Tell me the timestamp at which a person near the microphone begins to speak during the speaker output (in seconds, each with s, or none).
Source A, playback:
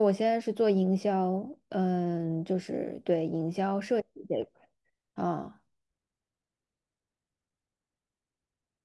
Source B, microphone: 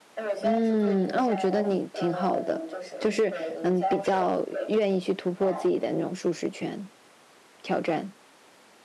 0.4 s